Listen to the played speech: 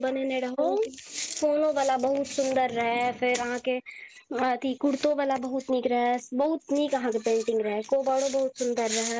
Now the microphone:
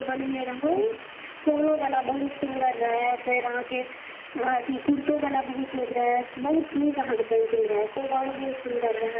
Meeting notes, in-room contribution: none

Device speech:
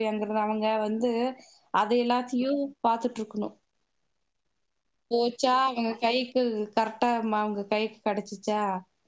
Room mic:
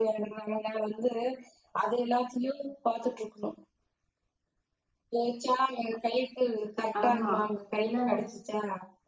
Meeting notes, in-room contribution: present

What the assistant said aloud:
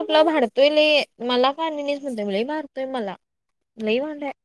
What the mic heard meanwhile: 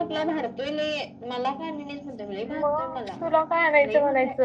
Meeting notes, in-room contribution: present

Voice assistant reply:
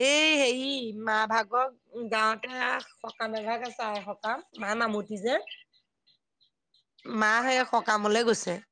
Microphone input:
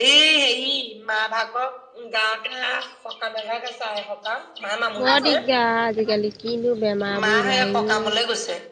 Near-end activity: present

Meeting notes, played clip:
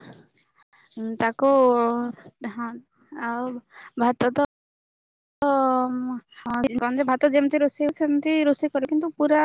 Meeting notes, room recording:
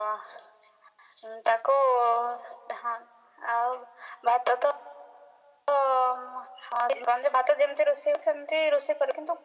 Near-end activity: none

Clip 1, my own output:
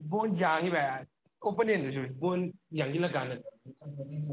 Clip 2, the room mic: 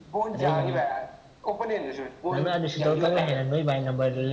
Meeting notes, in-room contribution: present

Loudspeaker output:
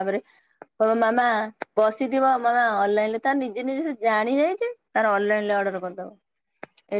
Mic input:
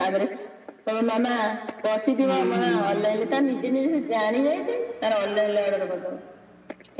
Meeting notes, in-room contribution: present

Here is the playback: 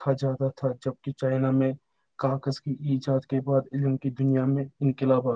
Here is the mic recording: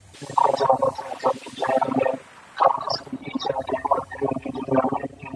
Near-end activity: none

